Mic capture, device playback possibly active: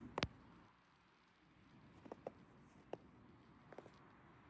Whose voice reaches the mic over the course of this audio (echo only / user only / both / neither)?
neither